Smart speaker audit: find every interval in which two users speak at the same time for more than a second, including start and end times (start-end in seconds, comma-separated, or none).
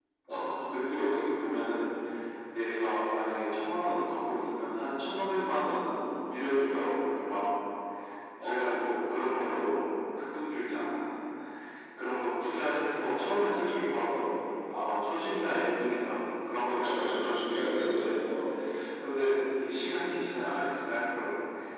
16.7-18.1